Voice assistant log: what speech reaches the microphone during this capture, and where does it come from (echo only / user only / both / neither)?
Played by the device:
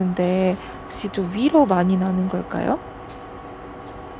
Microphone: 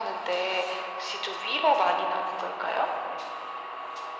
echo only